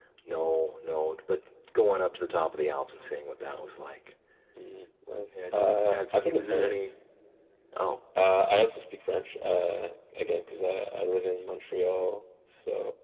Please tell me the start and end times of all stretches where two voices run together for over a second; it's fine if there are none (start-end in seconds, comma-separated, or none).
5.5-6.9